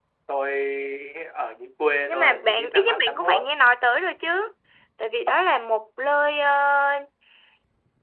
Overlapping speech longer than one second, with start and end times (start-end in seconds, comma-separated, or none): 2.1-3.4